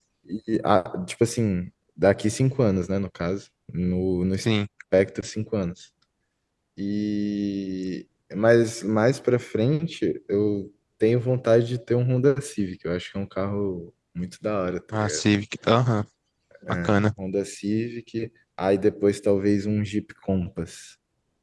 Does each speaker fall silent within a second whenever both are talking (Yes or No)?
Yes